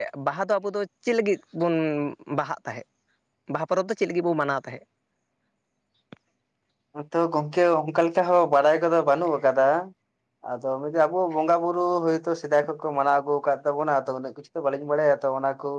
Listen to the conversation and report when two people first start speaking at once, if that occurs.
none

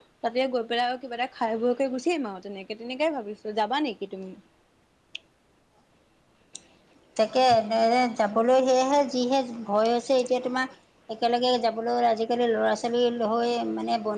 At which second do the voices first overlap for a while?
none

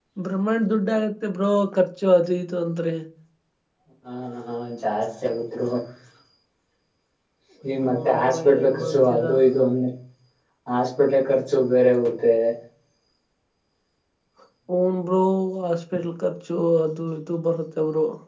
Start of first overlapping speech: 7.9 s

